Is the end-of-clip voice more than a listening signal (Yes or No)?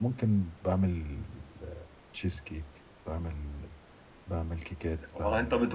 Yes